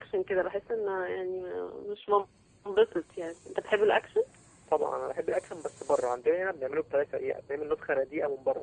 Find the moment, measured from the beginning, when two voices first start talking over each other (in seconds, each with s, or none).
none